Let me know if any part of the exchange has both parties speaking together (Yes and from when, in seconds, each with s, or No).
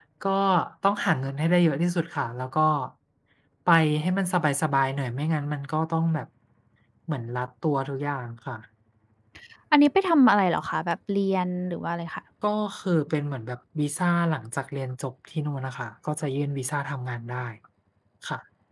No